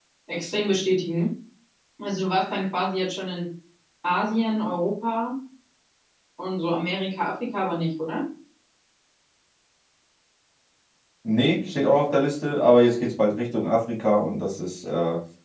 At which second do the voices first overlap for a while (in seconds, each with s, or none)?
none